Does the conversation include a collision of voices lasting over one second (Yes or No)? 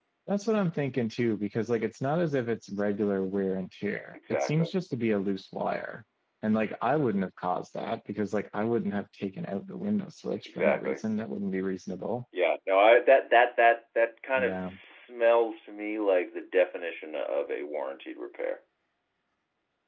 No